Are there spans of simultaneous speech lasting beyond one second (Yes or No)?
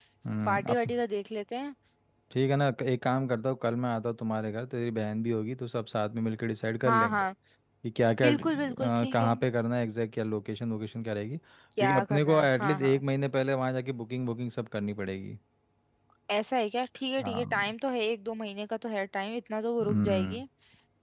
Yes